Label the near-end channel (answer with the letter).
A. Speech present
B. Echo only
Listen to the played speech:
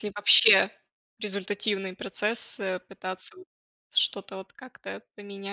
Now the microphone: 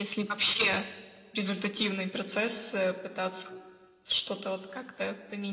B